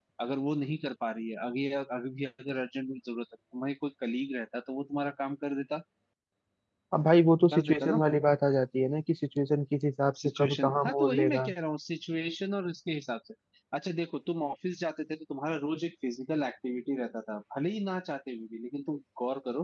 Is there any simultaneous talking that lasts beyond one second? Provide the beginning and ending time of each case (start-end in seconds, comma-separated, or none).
10.2-11.5